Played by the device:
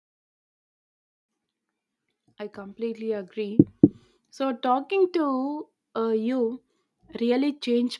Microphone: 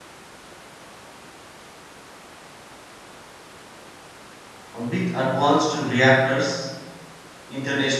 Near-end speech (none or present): present